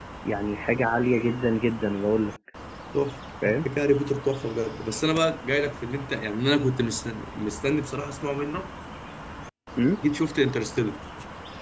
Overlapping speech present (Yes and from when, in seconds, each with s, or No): No